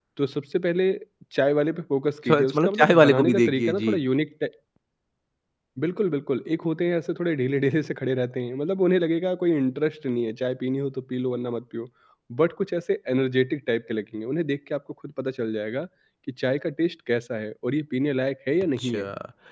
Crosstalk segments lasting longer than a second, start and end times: 2.3-3.9

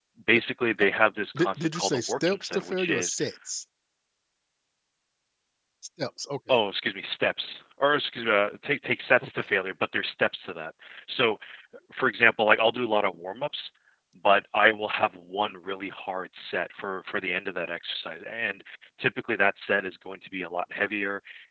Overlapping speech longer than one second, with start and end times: 1.4-3.2

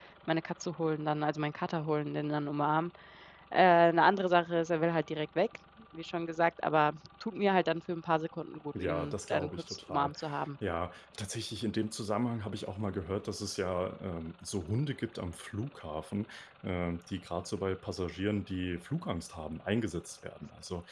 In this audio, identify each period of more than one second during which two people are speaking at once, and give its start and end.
8.8-10.1

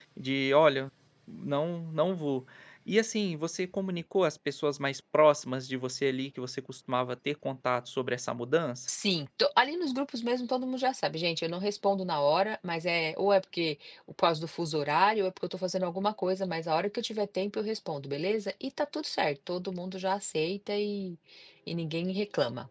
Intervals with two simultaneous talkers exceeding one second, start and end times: none

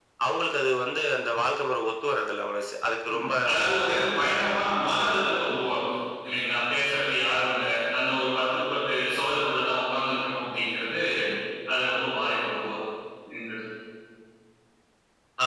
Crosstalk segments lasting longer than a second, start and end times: 3.1-5.2

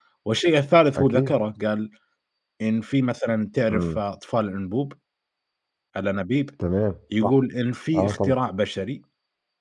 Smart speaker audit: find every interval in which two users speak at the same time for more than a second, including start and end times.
none

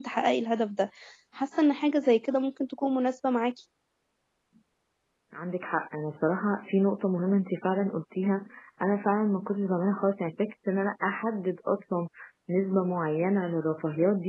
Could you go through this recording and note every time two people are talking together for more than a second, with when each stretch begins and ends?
none

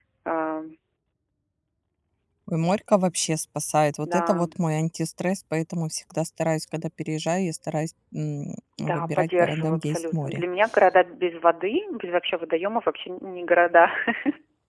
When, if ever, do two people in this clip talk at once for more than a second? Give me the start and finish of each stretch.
8.8-10.4

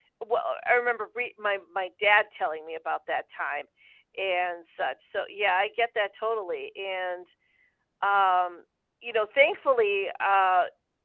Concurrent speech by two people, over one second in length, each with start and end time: none

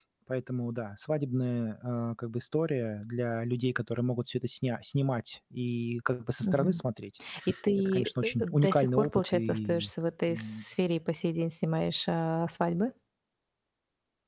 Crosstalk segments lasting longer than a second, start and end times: 7.8-9.9

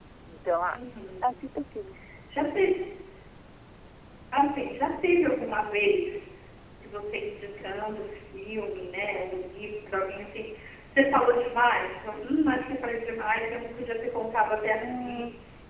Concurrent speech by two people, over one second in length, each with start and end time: none

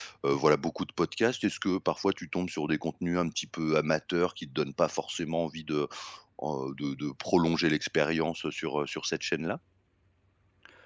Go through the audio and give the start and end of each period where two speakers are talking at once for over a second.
none

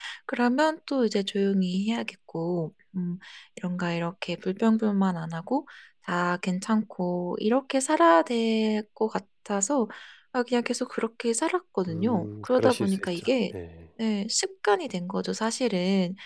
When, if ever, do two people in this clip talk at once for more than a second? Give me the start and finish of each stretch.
11.9-13.3

